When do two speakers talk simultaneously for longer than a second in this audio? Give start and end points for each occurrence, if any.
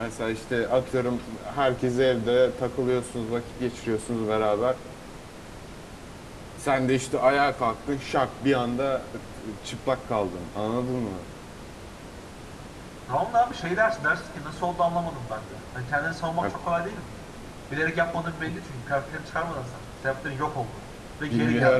none

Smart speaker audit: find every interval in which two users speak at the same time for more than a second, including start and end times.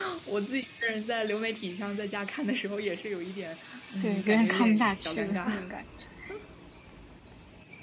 4.0-5.5

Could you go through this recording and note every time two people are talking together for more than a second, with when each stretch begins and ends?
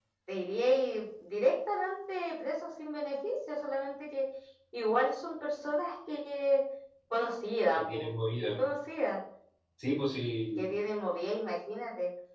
none

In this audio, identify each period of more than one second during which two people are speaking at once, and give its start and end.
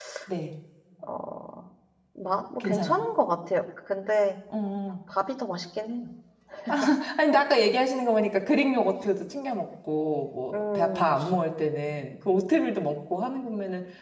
none

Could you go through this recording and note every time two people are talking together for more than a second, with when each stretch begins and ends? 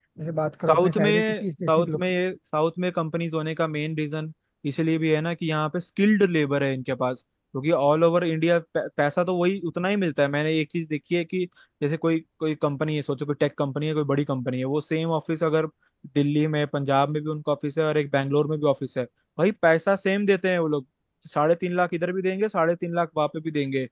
0.7-2.0

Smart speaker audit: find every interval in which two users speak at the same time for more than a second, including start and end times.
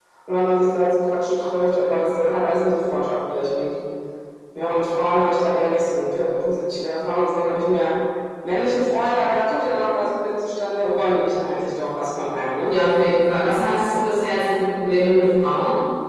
none

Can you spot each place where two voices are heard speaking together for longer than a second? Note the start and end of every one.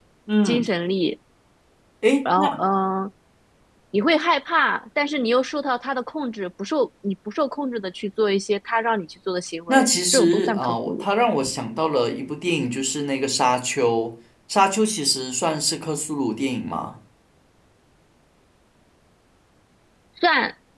9.7-11.1

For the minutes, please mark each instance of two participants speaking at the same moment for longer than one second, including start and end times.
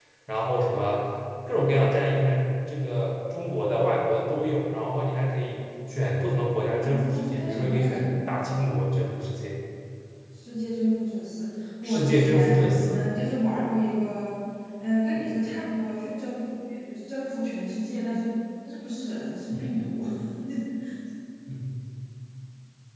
6.8-8.1, 11.8-13.1

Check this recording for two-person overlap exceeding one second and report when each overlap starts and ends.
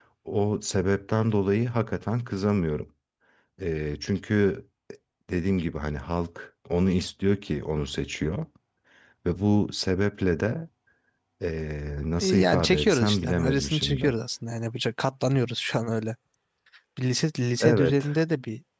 12.2-14.1

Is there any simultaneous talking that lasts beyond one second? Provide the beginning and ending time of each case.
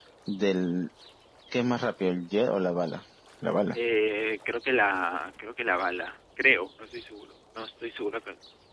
none

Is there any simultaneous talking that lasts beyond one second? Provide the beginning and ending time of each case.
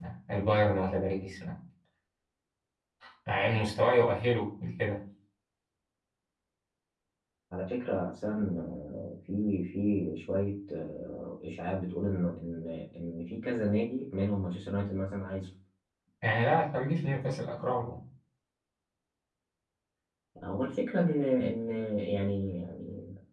none

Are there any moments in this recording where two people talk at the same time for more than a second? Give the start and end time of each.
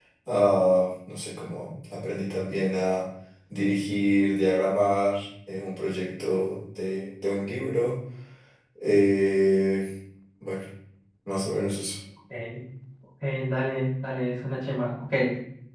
none

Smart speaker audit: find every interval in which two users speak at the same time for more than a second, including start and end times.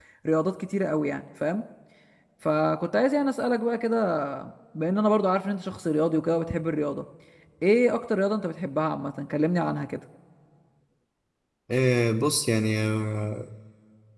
none

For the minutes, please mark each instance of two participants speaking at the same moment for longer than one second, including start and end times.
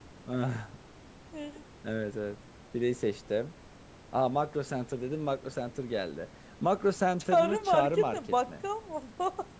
7.3-8.7

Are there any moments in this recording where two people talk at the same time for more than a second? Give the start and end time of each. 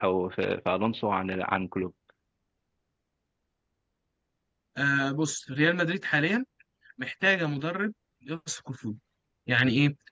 none

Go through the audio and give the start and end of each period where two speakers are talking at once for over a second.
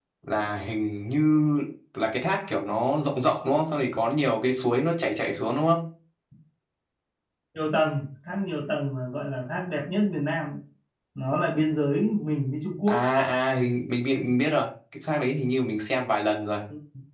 none

